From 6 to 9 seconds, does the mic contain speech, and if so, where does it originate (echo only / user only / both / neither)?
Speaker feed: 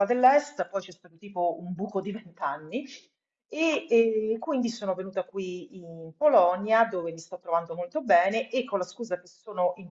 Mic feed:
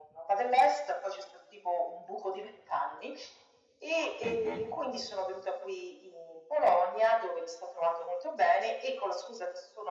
echo only